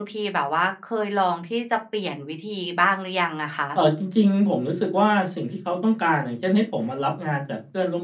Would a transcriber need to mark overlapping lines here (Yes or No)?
No